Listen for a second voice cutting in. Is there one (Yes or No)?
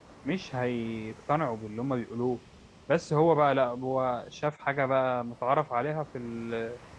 No